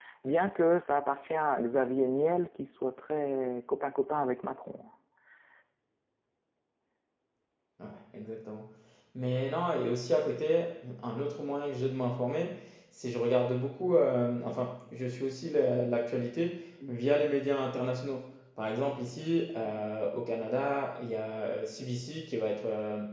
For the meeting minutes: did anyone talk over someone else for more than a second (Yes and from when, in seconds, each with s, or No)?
No